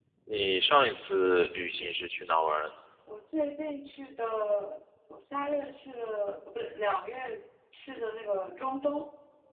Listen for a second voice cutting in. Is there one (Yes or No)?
No